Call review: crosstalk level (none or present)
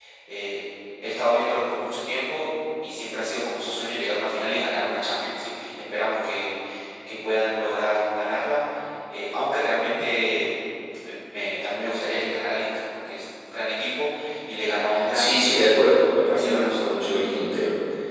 present